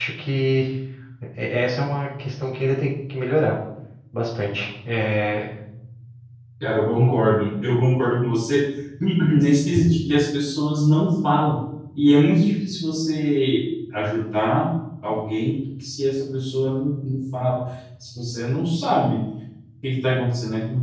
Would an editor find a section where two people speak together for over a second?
No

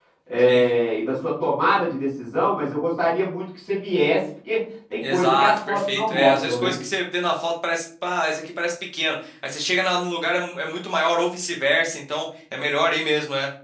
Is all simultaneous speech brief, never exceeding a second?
No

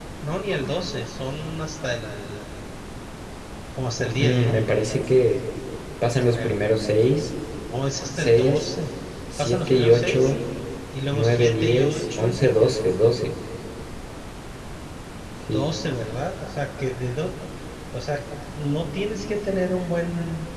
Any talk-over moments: Yes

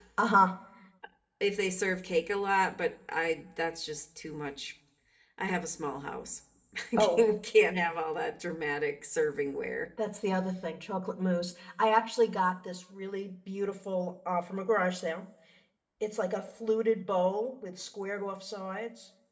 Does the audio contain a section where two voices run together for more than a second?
No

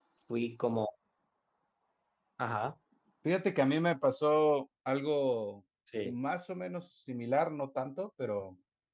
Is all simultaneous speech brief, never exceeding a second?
Yes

